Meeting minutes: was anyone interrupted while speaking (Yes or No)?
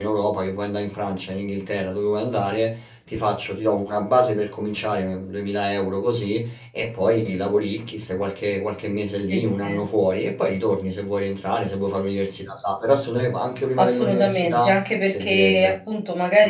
Yes